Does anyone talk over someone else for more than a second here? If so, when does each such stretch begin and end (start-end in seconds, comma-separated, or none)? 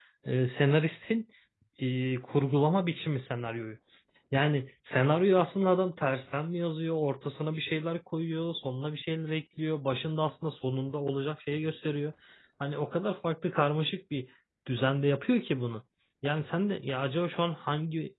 none